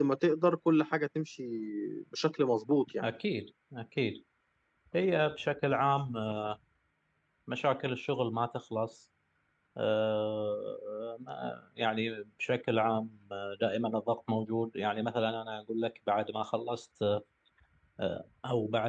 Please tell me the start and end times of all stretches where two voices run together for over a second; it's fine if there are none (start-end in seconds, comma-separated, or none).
none